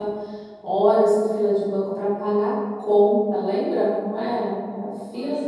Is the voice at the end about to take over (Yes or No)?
No